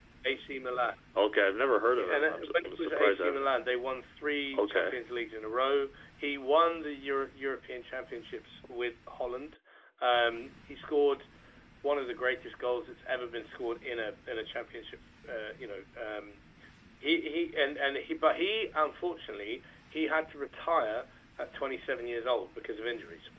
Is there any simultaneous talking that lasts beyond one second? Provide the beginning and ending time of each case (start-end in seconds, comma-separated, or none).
1.9-3.5